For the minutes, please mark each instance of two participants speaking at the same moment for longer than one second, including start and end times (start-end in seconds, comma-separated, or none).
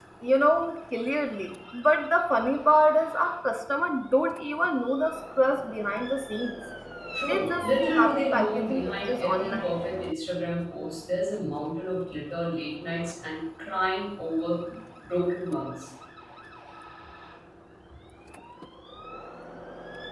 7.3-9.7